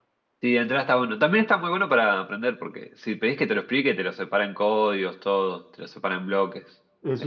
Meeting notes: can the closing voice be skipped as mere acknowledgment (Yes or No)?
No